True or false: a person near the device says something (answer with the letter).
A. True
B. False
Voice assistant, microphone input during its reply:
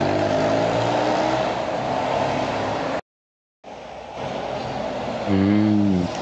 A